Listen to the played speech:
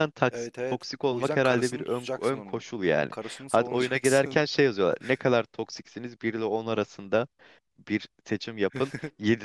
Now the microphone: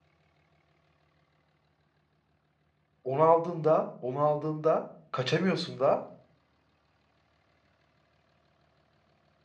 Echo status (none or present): none